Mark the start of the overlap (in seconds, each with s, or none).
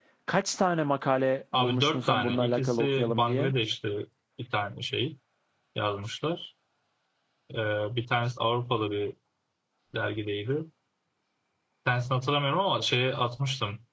1.5 s